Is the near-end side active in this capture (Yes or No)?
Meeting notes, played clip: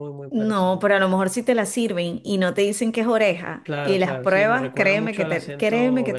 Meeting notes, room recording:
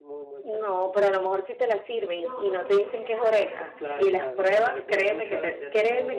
Yes